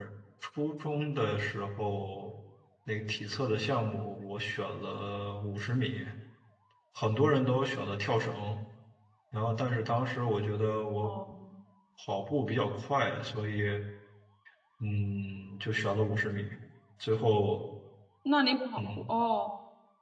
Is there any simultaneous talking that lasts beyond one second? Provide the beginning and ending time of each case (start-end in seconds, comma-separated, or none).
none